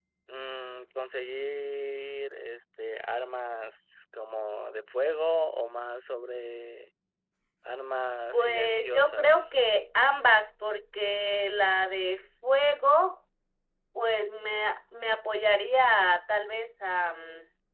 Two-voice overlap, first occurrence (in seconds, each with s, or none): 8.3 s